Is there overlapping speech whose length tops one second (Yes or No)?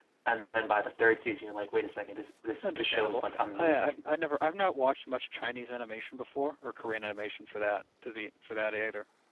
Yes